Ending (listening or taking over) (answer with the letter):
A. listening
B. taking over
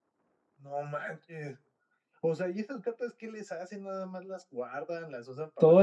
B